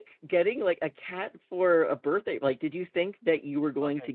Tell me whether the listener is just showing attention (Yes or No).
No